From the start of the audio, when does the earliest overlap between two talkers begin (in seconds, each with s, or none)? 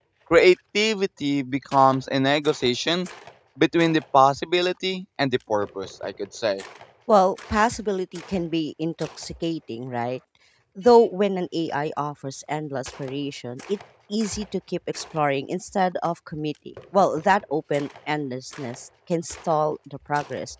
none